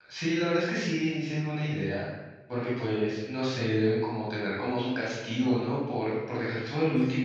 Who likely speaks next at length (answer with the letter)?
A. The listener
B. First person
A